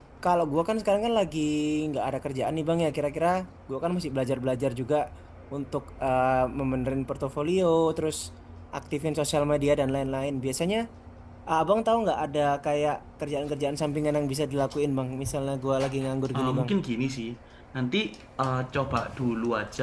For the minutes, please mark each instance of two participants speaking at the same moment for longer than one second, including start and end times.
none

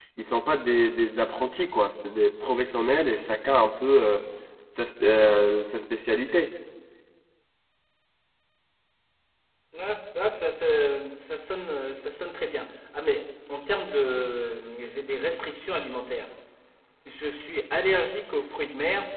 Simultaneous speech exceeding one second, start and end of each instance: none

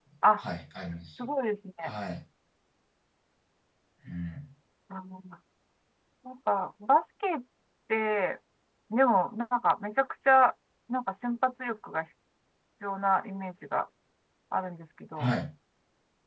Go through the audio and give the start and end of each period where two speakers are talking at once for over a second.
none

